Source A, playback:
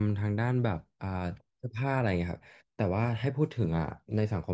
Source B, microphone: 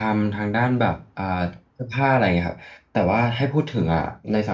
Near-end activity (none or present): none